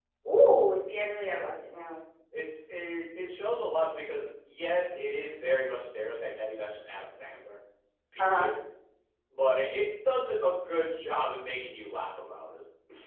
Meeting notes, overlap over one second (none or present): none